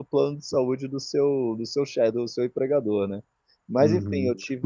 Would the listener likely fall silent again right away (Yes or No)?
No